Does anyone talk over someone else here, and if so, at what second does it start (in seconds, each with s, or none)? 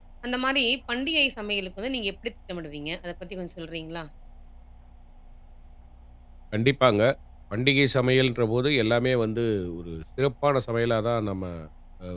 none